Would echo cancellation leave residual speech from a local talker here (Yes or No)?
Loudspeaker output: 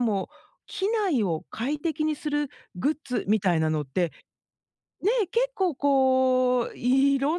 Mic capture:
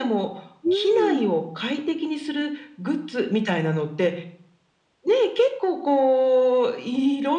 Yes